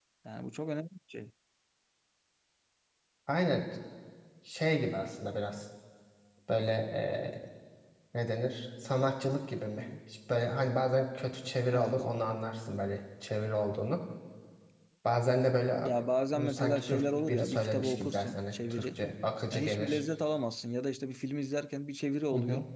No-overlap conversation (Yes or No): No